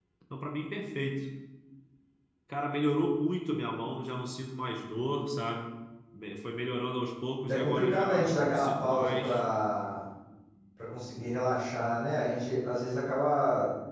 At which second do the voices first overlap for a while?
7.5 s

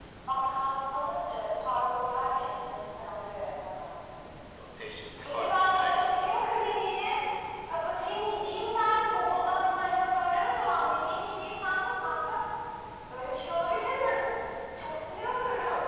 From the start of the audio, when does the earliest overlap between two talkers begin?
5.2 s

